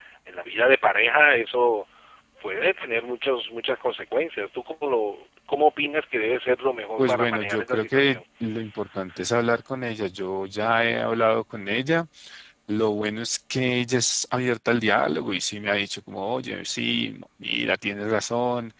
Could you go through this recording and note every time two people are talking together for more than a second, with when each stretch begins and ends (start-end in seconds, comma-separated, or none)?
7.0-8.2